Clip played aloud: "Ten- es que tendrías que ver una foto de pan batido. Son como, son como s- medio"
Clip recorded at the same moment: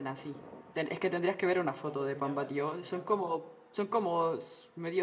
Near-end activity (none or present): present